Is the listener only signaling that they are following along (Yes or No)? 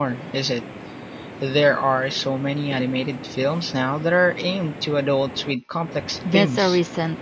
No